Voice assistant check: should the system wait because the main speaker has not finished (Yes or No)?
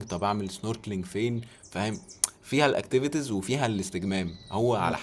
Yes